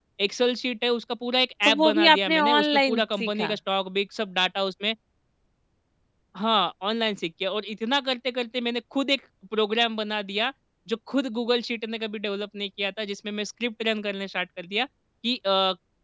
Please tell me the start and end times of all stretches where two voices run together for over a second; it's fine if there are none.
1.6-3.5

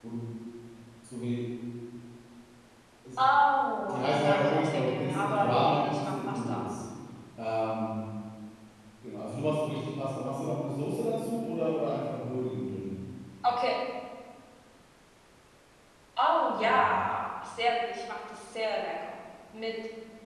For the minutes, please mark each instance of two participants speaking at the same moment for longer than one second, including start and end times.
3.9-6.7

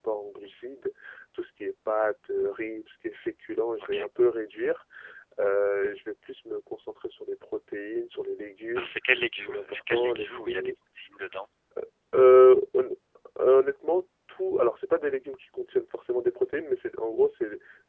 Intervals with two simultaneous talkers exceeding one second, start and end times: 9.4-10.7

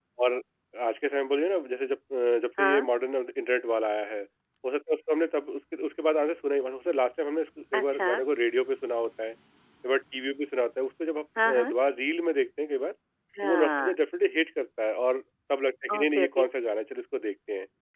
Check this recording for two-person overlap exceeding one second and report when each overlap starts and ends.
none

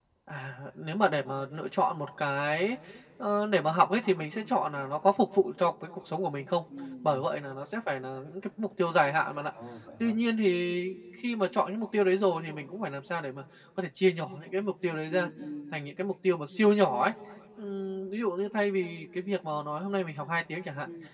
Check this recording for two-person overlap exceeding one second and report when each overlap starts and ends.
none

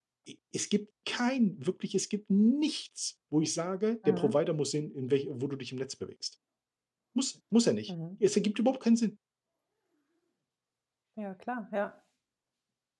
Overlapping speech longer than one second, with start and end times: none

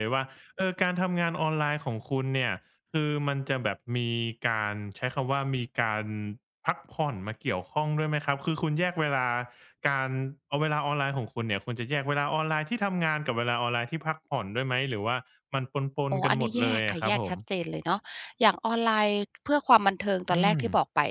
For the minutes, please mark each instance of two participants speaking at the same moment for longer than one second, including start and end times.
16.1-17.3

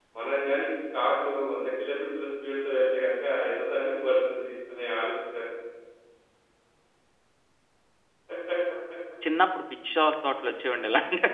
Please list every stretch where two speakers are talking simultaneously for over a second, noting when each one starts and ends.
none

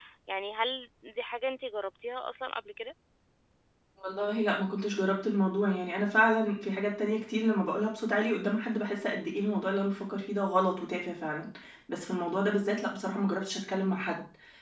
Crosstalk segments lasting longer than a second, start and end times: none

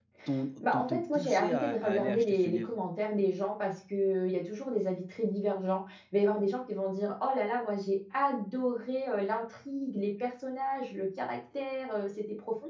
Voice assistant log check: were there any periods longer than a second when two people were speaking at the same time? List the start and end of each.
0.7-2.7

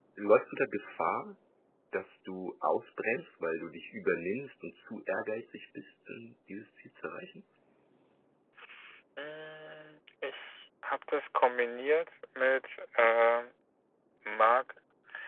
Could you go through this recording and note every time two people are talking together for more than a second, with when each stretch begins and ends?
none

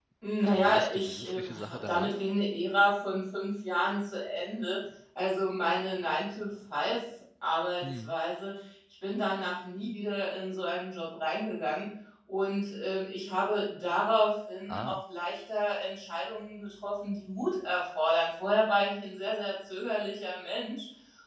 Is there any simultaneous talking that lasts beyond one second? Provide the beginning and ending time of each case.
0.5-2.2

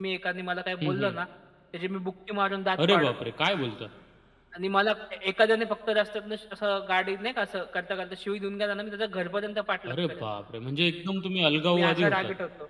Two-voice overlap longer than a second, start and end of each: none

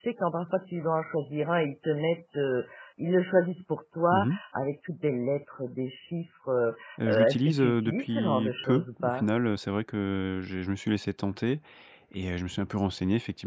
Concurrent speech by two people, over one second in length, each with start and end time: 7.1-9.2

